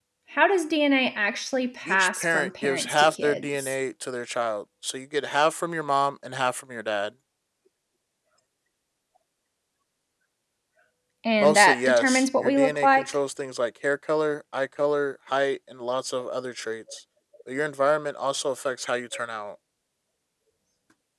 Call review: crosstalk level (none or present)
present